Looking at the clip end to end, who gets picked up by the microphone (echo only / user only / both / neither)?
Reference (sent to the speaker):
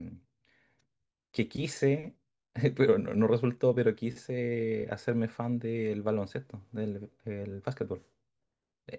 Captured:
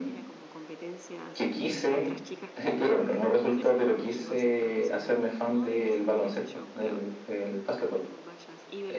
both